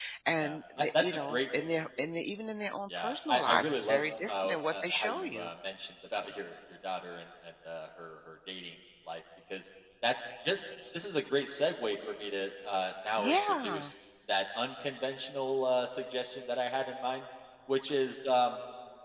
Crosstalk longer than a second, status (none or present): present